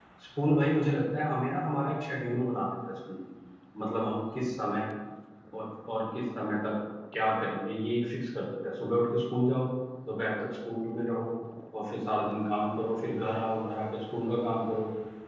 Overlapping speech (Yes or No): No